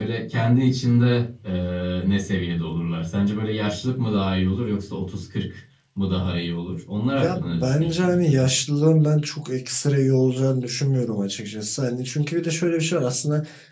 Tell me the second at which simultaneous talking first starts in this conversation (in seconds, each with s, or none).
7.2 s